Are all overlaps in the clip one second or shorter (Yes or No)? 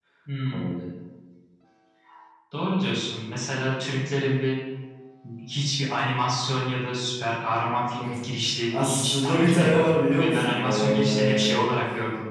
No